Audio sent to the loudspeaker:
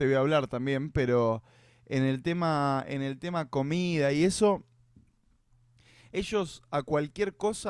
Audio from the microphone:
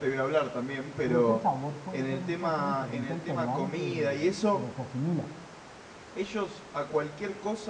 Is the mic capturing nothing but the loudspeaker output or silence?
No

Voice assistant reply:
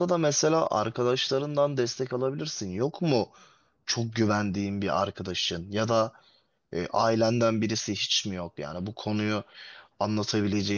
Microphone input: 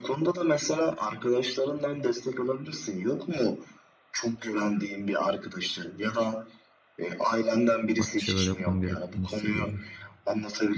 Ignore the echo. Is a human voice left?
Yes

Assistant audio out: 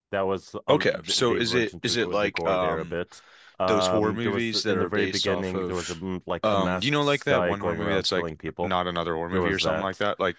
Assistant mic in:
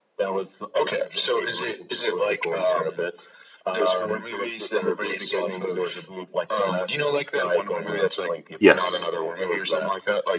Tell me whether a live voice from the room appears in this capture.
Yes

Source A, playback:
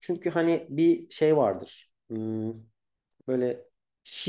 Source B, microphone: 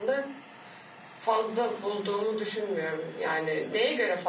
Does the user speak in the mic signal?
Yes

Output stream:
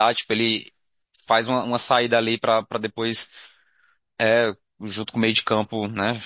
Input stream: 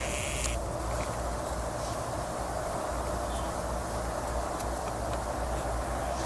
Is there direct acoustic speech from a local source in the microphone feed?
No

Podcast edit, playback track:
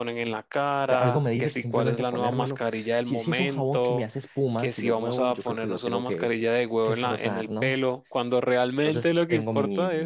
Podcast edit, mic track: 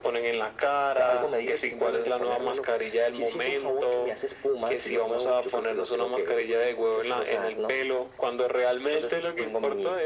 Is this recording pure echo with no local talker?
Yes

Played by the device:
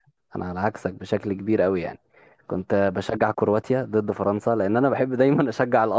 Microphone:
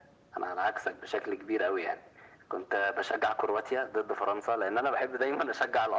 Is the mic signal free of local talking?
Yes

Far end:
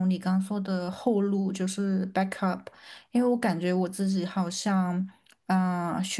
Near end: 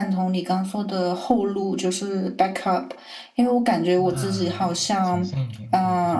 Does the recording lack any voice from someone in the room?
No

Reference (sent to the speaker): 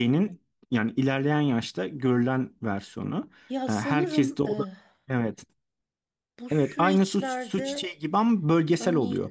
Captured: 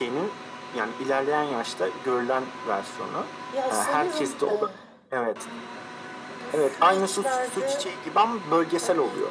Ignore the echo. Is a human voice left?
No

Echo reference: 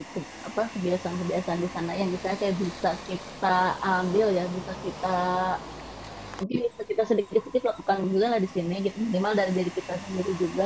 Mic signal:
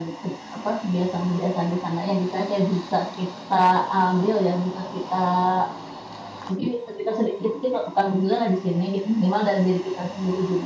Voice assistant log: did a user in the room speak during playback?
No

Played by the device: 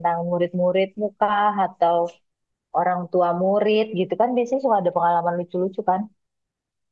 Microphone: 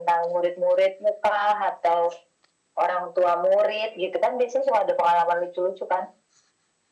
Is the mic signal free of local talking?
Yes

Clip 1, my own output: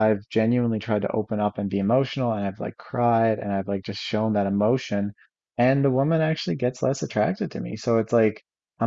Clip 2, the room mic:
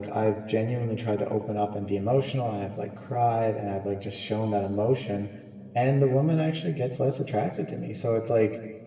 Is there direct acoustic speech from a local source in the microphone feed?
No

